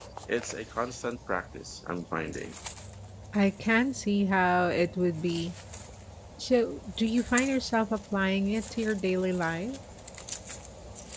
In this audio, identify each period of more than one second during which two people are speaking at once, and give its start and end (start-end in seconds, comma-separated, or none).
none